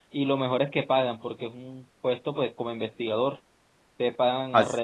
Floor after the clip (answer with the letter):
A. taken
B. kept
B